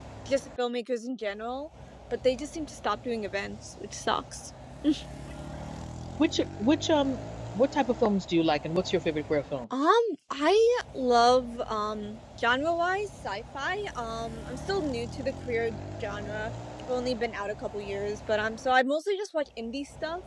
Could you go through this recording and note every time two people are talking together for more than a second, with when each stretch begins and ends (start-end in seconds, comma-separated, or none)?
none